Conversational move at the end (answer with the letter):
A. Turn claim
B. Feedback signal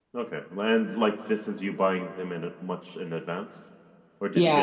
A